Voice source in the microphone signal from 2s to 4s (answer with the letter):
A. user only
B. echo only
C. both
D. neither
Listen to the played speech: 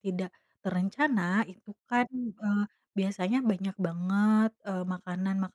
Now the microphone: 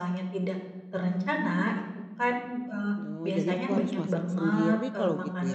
C